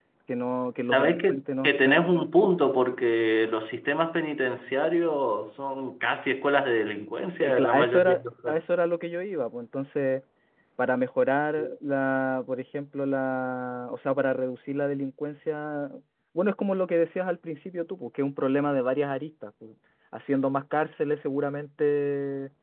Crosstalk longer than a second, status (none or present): present